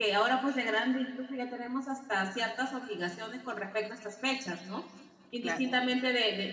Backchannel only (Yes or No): Yes